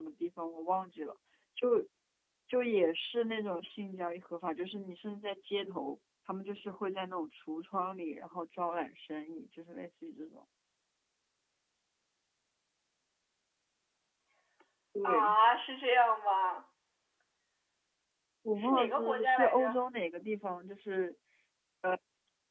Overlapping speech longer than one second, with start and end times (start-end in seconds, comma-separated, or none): 18.6-19.8